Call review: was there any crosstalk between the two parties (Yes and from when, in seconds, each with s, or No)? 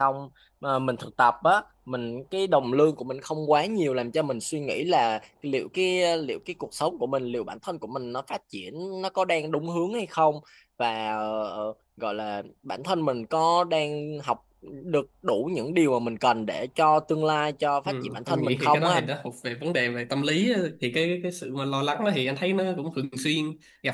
Yes, from 17.9 s